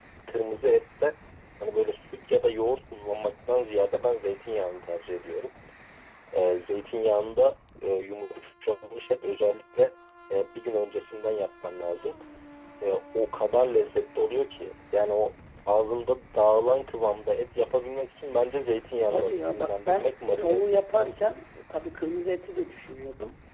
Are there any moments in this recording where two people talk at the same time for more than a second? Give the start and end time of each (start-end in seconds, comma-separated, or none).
19.1-21.2